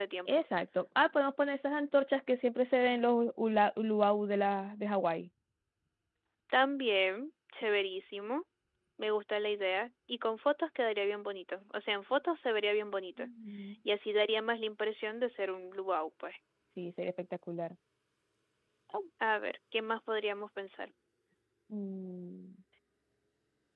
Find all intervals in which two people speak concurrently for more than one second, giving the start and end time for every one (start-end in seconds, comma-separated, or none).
none